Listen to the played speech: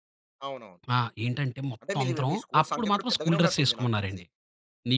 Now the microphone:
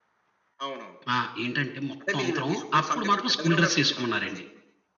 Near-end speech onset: none

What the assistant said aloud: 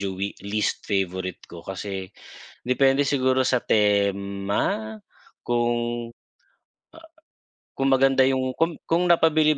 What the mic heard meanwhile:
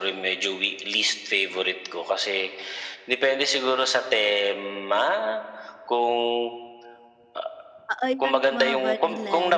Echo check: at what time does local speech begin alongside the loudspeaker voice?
7.9 s

